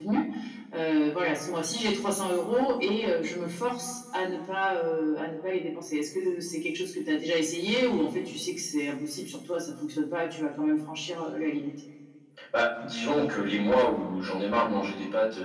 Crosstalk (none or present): none